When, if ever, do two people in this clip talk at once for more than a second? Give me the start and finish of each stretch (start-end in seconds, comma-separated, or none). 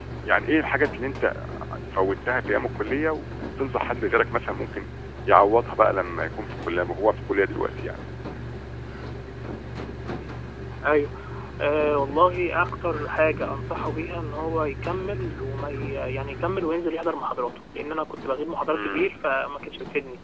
none